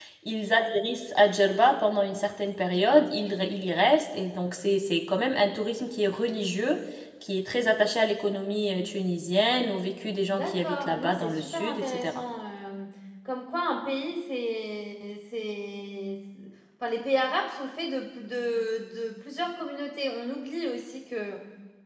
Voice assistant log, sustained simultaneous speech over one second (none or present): present